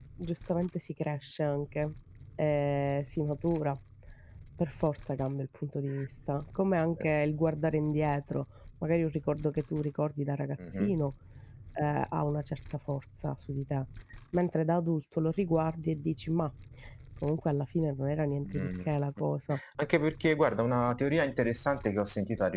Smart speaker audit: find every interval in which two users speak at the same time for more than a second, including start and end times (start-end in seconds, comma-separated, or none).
none